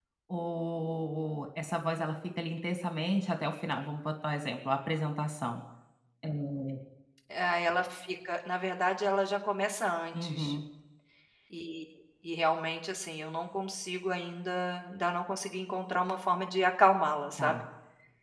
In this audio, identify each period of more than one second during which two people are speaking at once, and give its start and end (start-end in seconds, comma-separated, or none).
none